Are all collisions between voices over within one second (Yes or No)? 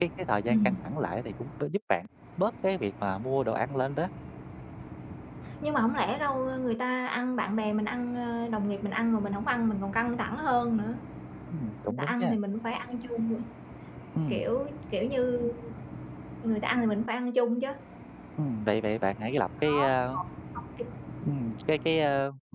Yes